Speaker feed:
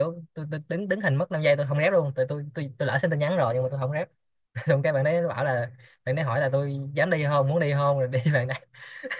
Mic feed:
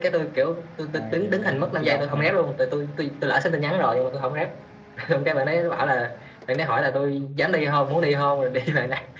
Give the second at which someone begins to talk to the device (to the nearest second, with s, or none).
1 s